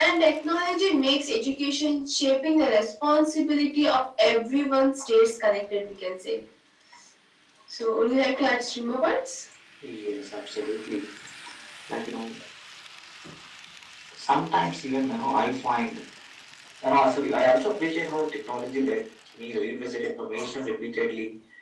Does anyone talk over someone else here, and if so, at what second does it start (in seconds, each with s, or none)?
none